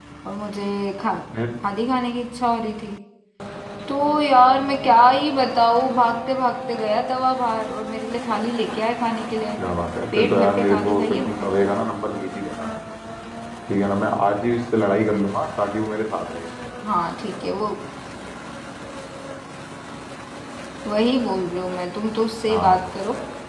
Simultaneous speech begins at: 10.2 s

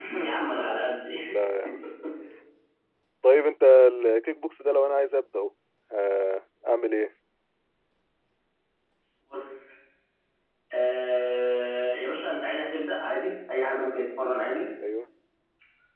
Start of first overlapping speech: none

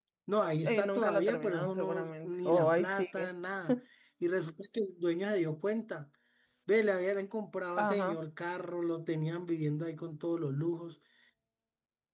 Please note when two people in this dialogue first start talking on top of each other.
0.6 s

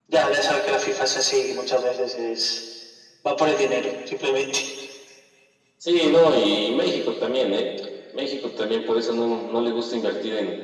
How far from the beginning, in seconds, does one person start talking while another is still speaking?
none

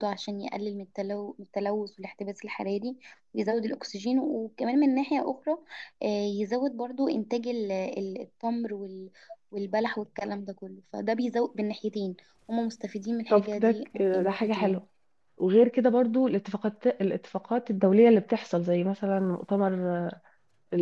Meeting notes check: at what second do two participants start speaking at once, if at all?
13.3 s

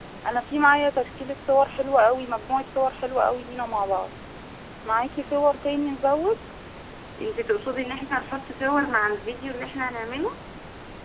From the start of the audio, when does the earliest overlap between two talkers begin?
none

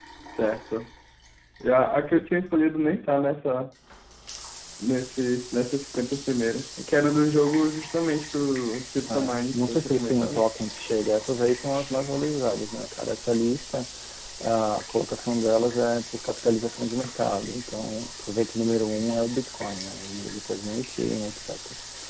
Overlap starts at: 9.1 s

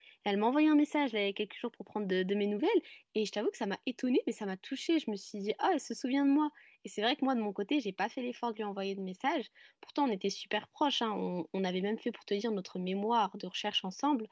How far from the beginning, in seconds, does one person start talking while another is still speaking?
none

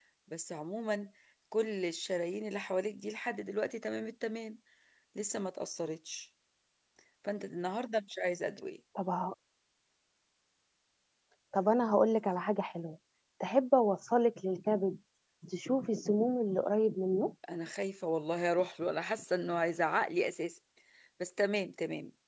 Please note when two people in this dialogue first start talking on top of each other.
none

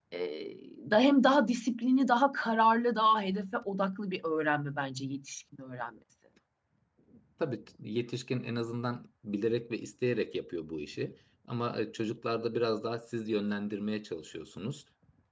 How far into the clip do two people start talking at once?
none

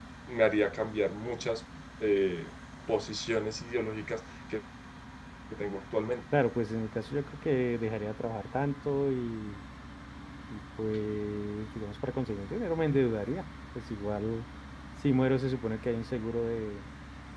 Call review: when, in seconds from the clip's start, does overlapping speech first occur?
none

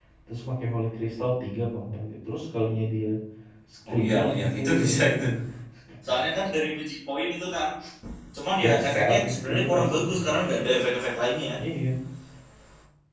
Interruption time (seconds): 3.9 s

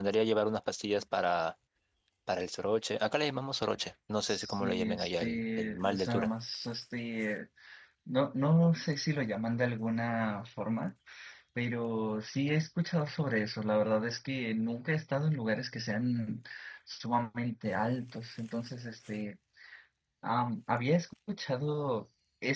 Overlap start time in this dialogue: 4.2 s

